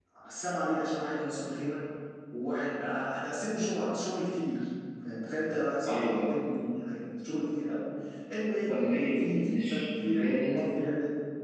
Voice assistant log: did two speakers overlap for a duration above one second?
Yes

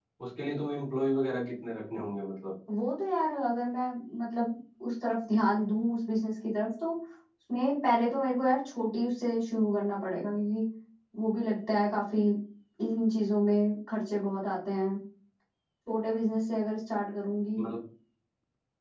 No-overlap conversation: Yes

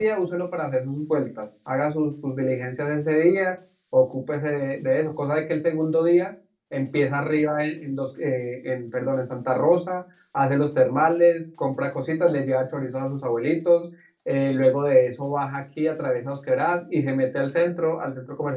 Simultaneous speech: No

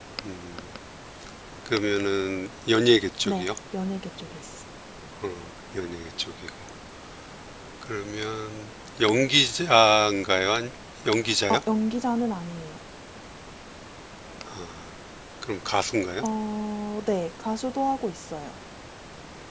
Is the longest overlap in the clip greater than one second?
No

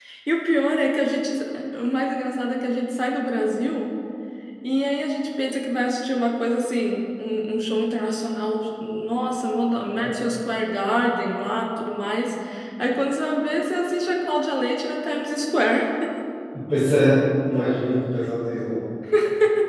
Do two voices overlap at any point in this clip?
No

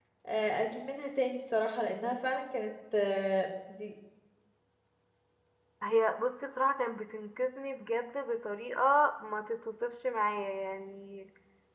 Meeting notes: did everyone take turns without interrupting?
Yes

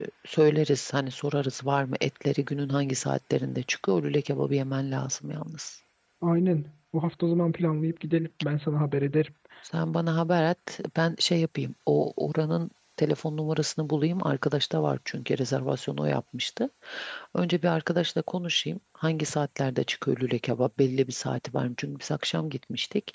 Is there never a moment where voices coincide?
Yes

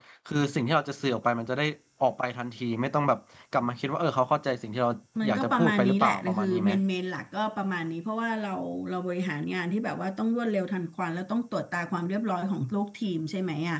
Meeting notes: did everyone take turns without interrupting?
No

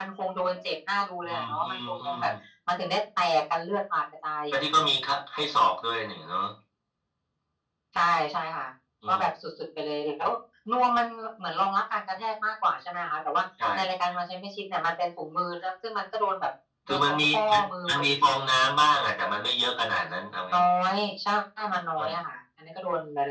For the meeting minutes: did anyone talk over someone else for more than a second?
Yes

